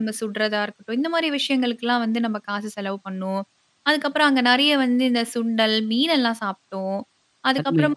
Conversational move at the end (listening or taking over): listening